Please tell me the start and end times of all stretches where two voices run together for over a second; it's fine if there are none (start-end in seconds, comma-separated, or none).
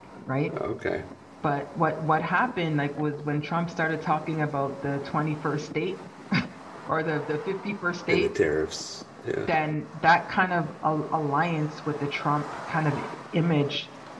none